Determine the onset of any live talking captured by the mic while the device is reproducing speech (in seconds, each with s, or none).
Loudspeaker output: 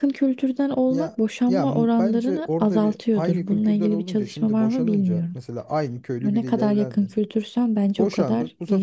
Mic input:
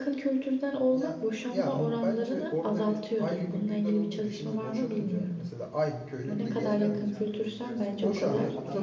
6.2 s